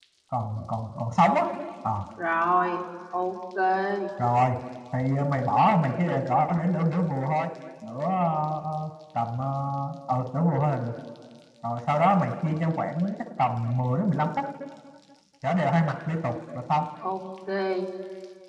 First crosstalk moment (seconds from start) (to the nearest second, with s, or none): none